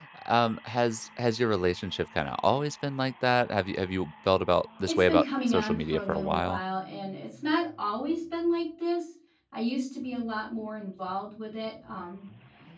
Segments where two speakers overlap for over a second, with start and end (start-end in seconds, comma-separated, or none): 4.8-6.6